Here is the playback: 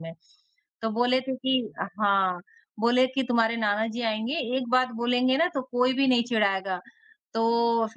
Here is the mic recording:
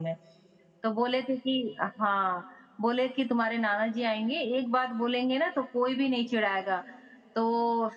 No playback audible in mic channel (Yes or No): No